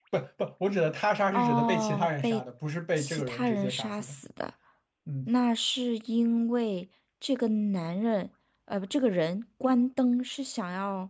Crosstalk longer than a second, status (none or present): present